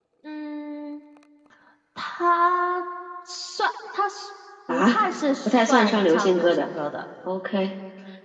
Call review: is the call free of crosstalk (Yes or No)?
No